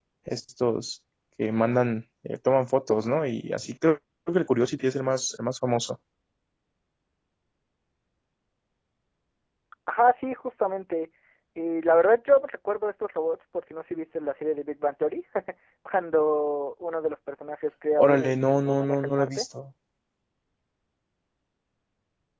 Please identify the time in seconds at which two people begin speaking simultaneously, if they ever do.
18.0 s

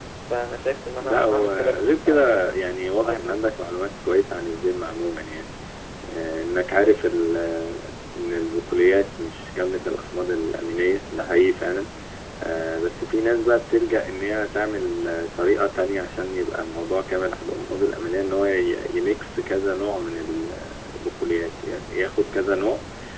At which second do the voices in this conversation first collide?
1.0 s

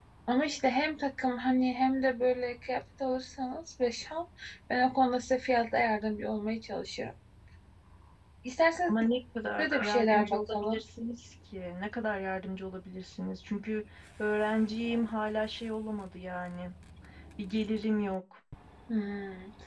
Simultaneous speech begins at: 9.6 s

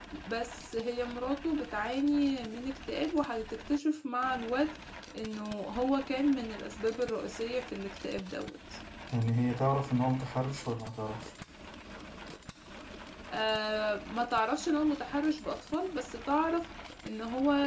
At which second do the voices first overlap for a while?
none

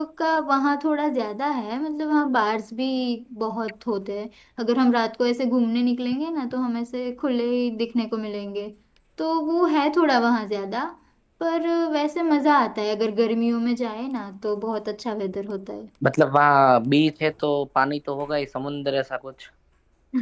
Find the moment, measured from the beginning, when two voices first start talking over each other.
none

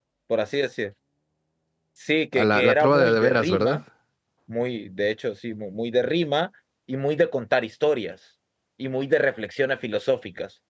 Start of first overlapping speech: 2.4 s

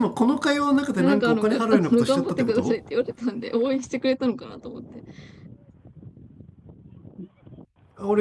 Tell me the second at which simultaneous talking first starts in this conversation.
1.0 s

